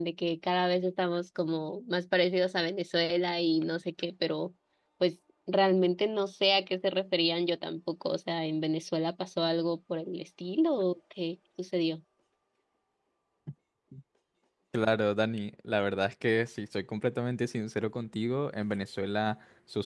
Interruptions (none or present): none